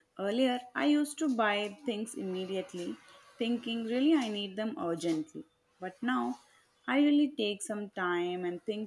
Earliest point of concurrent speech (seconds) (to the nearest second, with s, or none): none